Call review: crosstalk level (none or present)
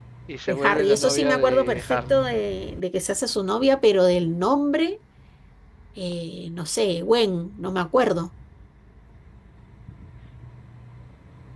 present